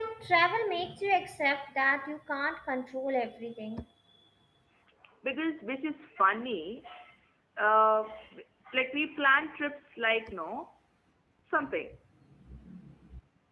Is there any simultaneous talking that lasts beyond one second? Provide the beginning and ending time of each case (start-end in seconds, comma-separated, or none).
none